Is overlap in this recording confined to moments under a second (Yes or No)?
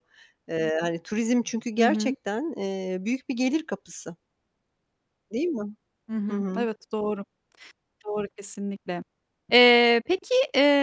Yes